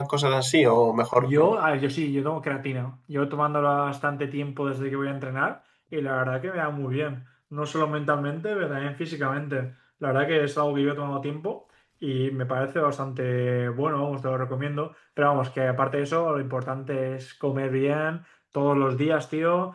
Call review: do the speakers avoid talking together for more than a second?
Yes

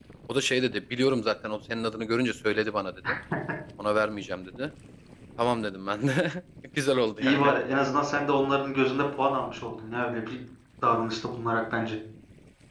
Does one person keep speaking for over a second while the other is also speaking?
No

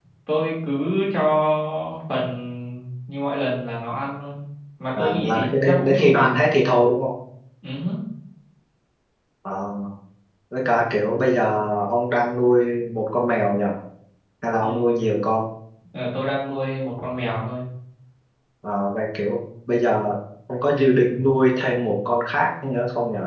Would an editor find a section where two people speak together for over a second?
Yes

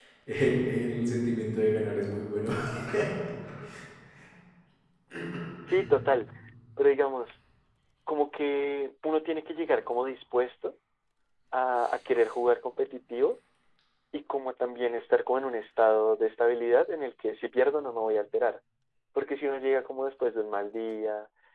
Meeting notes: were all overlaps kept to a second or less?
Yes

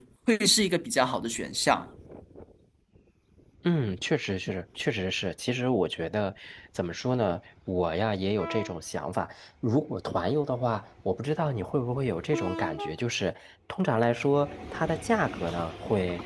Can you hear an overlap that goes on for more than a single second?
No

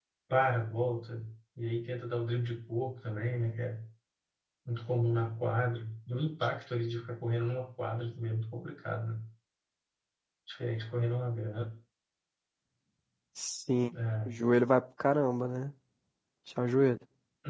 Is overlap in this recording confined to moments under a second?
Yes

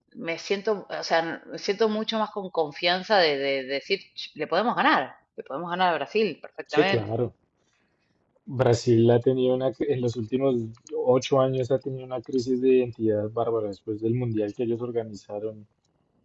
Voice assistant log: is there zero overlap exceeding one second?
Yes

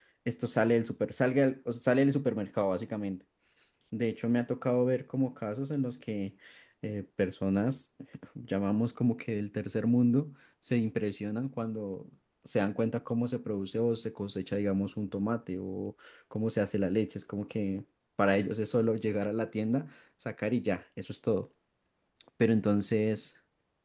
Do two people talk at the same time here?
No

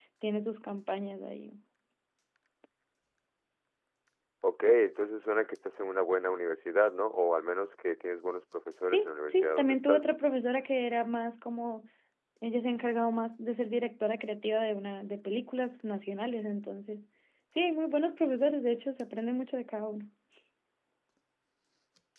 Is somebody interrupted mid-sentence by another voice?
Yes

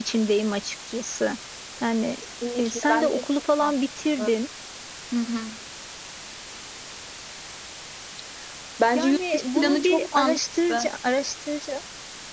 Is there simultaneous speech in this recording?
Yes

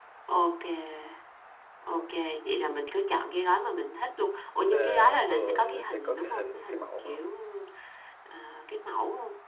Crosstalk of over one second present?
Yes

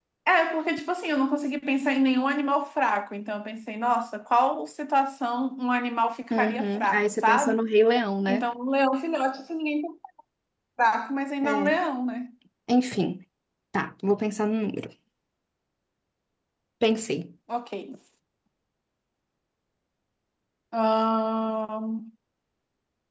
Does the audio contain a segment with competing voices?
Yes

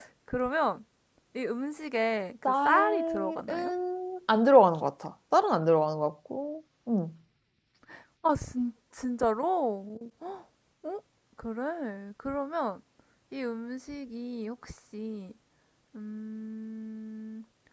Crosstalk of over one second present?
Yes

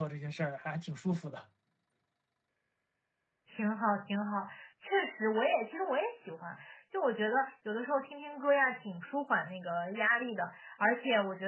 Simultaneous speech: No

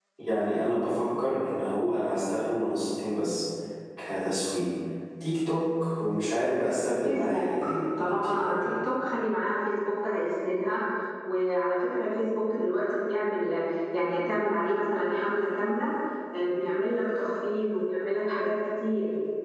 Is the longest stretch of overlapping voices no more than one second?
No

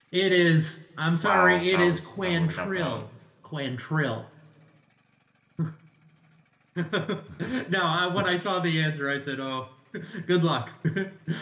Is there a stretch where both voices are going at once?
Yes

